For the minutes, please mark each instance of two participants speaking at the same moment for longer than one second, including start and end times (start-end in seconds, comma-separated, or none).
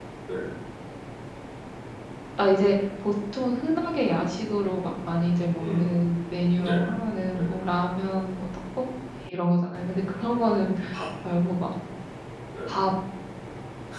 none